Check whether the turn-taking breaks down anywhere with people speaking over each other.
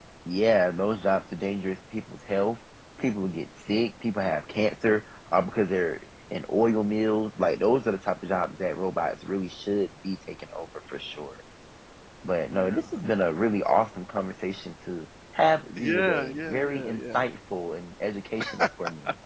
Yes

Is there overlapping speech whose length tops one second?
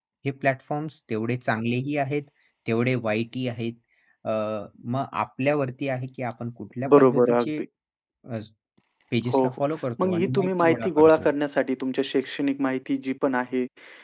Yes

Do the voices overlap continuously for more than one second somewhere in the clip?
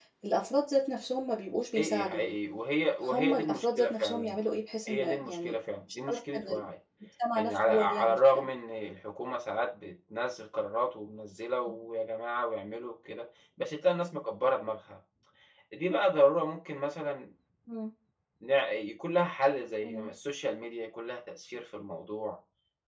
Yes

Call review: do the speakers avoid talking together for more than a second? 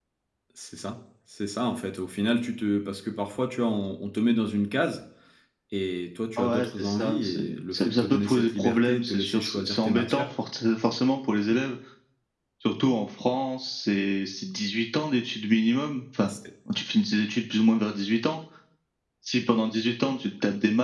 No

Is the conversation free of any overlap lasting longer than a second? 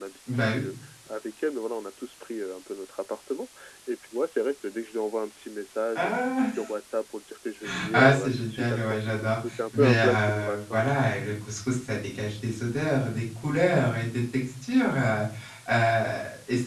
No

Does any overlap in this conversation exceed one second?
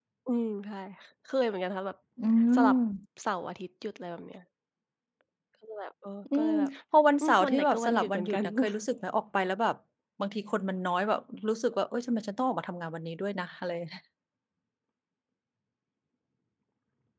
Yes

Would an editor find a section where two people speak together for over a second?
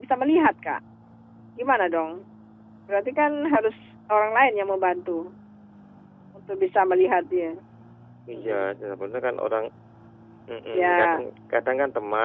No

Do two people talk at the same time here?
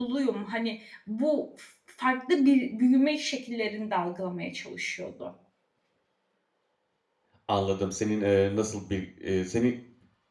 No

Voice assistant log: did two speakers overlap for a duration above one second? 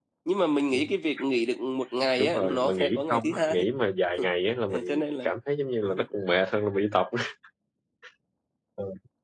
Yes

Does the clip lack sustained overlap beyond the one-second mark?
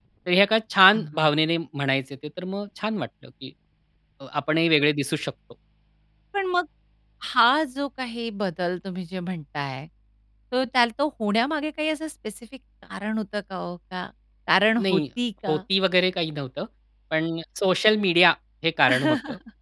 Yes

